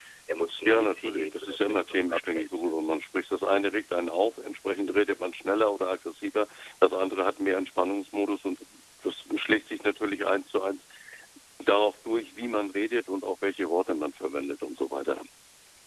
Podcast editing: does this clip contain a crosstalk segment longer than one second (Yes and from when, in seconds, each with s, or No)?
Yes, from 0.6 s